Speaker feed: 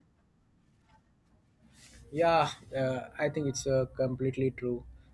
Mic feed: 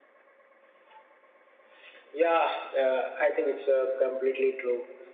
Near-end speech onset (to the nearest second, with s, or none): none